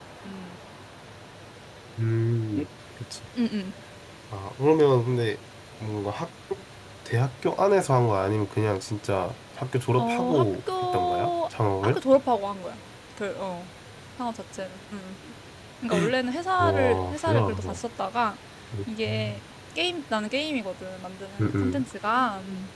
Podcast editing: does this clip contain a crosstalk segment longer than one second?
Yes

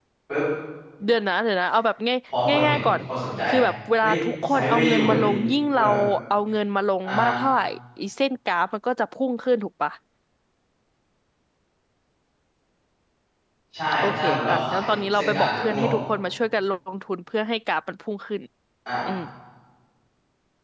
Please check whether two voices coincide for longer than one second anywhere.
Yes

